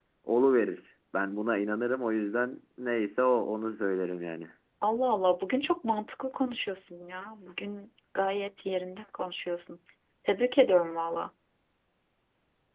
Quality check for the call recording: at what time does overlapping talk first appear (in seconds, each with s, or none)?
none